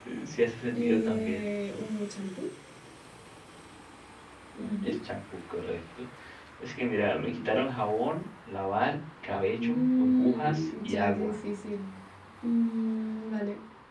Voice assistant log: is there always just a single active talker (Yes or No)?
No